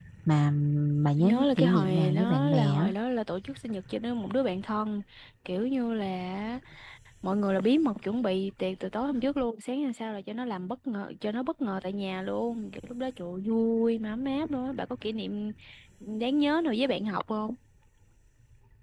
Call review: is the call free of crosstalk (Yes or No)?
No